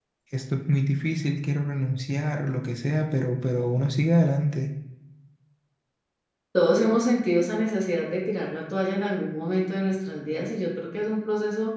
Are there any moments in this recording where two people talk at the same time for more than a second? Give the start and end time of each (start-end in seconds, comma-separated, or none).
none